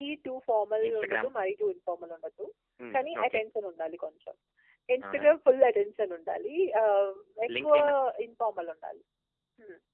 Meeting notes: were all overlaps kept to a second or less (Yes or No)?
Yes